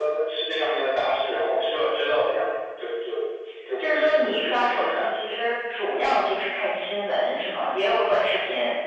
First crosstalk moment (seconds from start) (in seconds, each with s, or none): 3.8 s